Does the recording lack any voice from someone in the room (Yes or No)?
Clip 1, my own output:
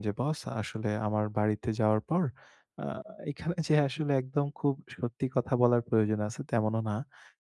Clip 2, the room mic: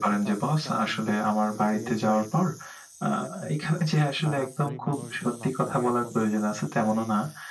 No